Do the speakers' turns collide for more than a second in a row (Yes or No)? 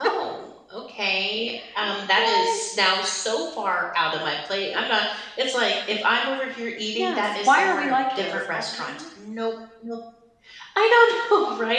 Yes